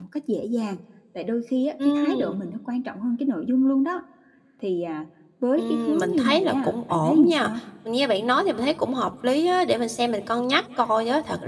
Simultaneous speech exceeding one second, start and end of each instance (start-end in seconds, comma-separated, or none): 5.6-7.4